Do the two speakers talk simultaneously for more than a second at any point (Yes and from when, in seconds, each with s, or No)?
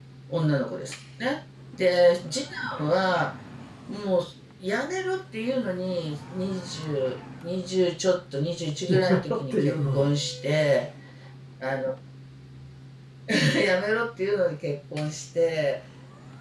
Yes, from 8.9 s